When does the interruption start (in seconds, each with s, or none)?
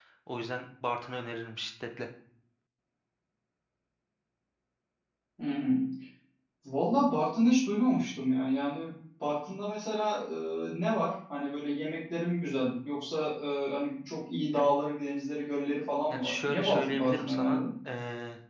16.1 s